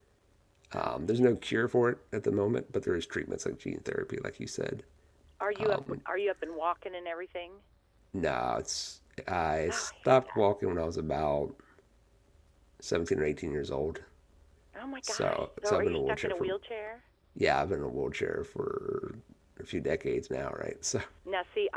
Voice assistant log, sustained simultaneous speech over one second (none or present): present